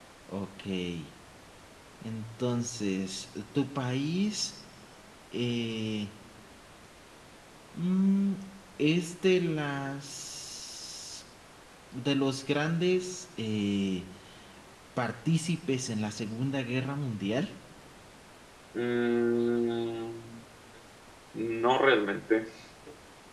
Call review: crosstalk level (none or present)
none